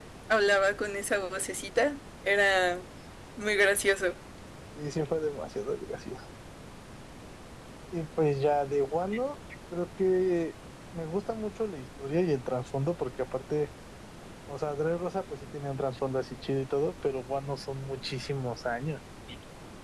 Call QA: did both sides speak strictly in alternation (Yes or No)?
Yes